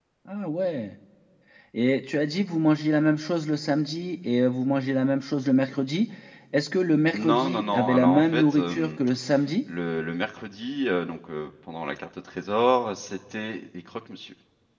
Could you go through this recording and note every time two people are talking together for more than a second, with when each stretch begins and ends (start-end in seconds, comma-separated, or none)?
7.2-8.9